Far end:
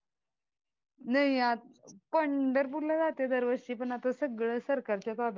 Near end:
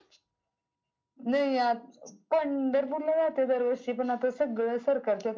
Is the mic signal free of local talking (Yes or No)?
Yes